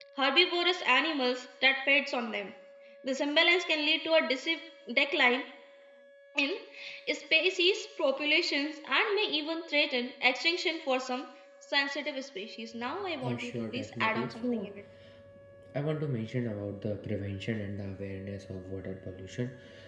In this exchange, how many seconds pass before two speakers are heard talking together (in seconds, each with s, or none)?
13.2 s